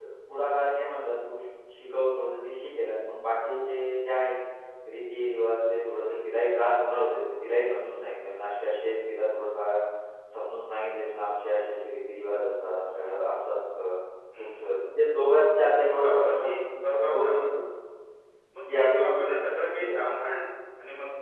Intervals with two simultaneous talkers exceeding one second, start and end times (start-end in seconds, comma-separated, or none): 16.0-17.4, 18.7-20.0